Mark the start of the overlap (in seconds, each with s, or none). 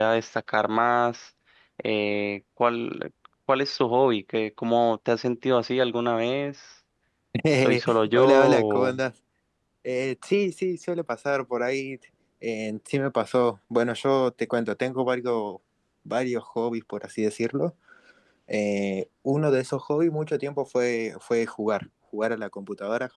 7.6 s